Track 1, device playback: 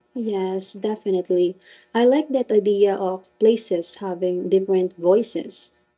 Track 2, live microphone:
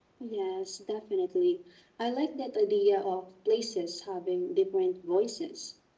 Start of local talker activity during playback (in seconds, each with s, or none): none